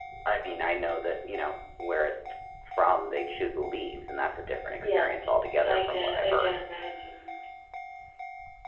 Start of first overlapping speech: 5 s

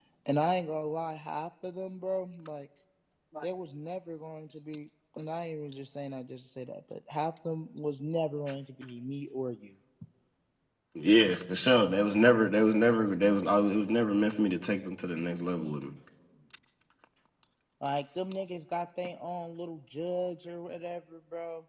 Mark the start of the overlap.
none

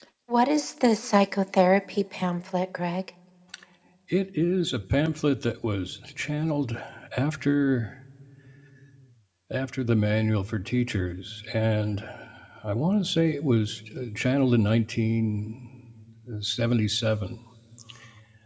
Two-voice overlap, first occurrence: none

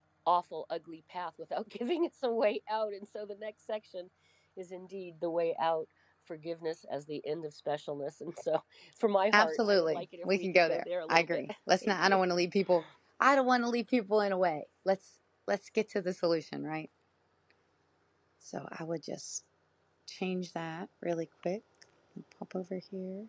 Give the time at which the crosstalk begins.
9 s

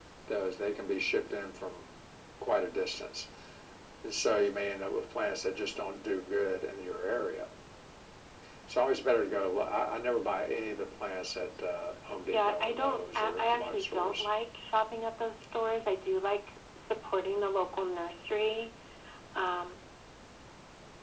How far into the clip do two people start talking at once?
12 s

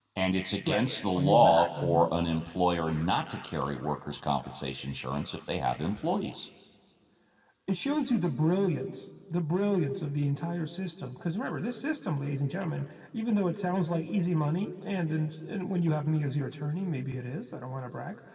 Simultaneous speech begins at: 1 s

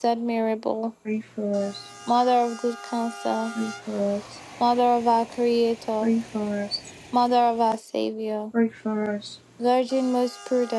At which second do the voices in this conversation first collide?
none

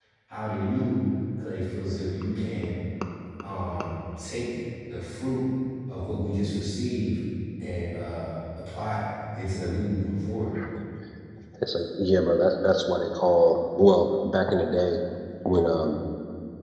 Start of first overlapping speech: none

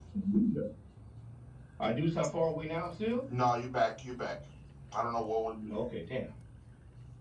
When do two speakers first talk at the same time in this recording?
none

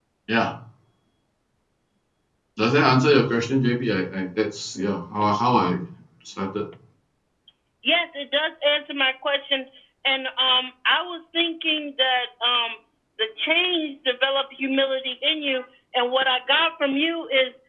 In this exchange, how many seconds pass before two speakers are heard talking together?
none

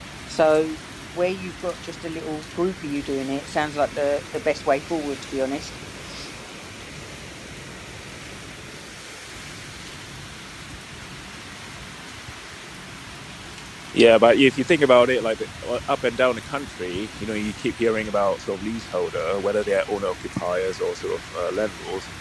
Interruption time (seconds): none

